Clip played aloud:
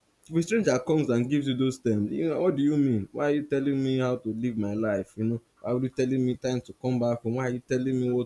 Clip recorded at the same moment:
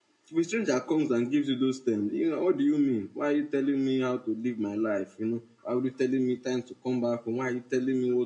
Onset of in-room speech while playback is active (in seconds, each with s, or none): none